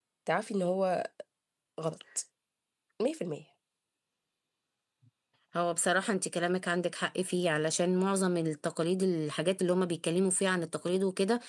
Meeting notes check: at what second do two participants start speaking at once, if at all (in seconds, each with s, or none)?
none